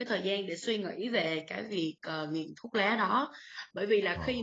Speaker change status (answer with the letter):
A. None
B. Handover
A